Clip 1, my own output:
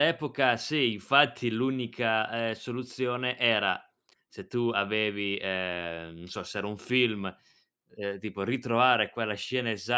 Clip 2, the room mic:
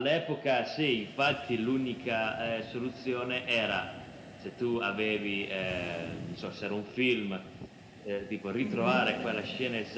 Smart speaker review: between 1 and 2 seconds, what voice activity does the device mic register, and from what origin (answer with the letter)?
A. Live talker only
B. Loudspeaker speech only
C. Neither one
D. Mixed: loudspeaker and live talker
B